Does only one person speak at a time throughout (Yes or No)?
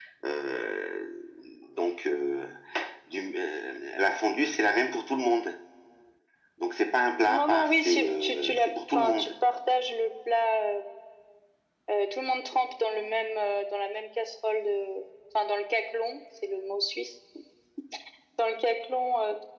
No